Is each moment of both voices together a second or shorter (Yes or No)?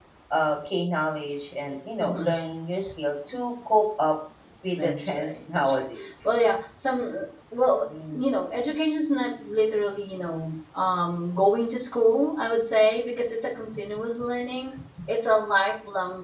No